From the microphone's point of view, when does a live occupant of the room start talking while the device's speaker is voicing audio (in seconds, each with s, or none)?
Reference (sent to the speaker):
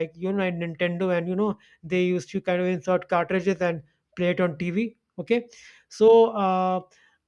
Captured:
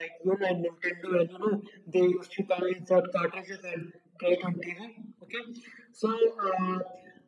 none